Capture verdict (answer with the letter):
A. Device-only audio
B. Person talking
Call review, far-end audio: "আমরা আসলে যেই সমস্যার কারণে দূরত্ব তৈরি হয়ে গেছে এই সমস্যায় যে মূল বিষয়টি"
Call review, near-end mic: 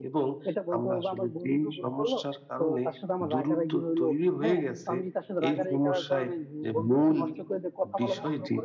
B